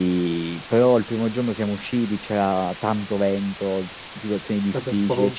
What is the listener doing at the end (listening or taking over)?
listening